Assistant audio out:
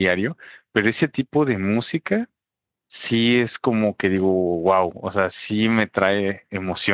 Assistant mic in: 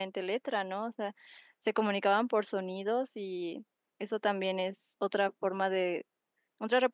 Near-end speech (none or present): present